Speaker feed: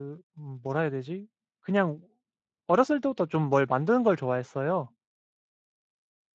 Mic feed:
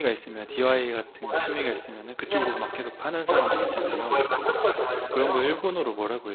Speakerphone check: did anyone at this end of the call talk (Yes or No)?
Yes